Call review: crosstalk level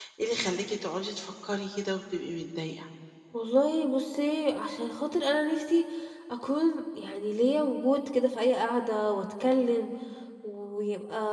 none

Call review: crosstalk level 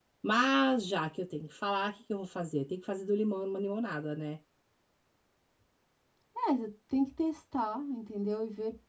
none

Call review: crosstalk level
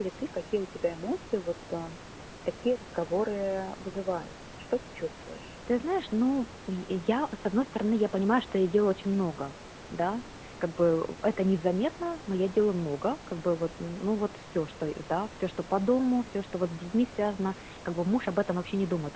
none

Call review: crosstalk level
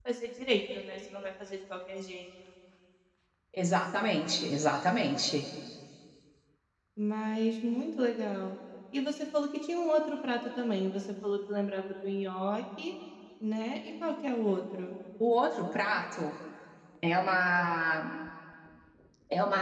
none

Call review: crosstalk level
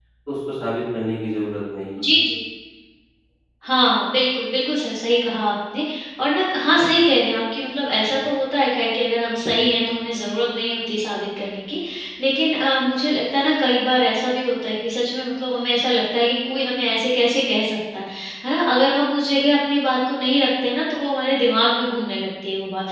none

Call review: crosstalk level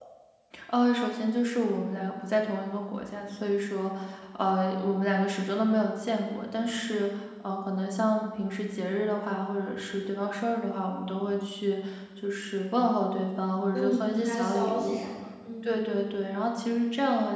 present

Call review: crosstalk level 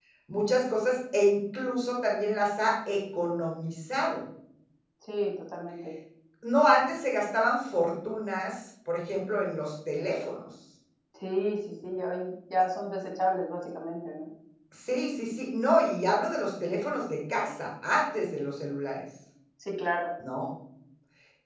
none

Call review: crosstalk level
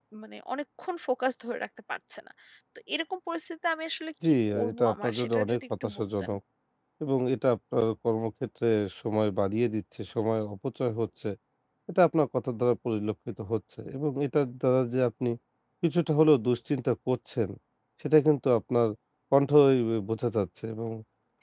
present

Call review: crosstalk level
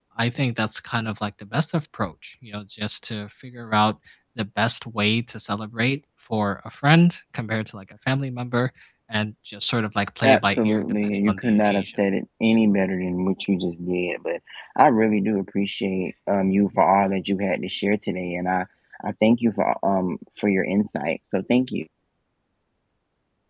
present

